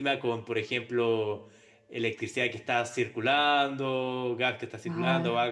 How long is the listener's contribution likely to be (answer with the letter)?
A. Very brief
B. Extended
A